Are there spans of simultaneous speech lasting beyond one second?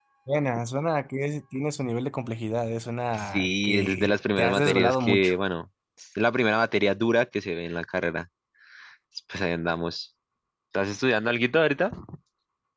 Yes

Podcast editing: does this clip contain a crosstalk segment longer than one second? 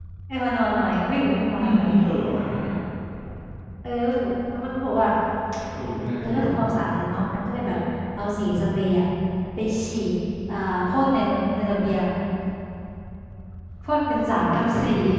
No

